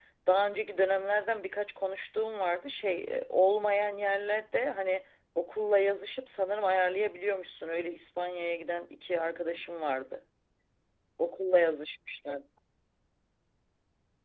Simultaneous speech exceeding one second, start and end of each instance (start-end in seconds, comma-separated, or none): none